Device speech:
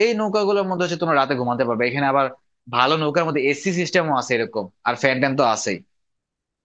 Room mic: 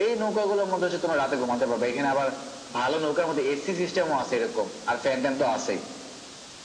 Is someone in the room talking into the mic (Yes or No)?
No